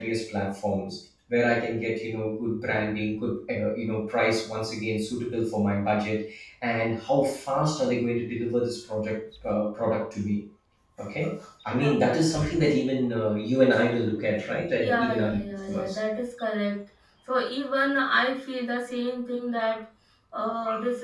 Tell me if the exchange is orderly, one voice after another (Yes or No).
No